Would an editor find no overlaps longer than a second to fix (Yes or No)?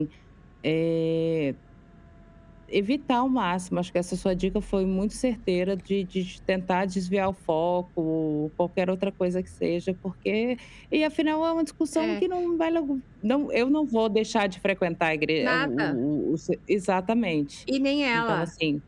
Yes